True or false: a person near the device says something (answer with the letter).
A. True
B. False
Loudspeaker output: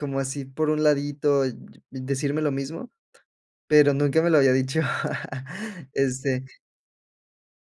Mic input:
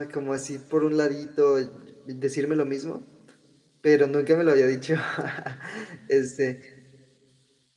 B